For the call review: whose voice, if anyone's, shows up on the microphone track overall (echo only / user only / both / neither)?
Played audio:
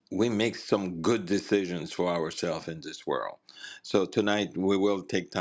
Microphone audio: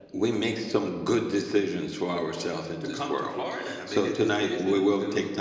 both